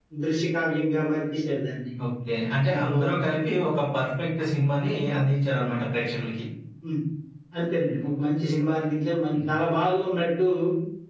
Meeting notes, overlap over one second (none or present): none